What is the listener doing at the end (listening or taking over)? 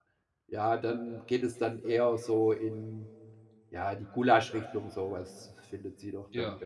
listening